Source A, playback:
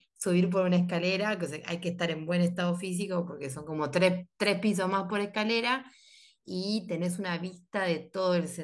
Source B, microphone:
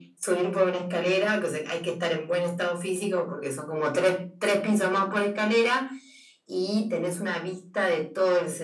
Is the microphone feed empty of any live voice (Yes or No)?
Yes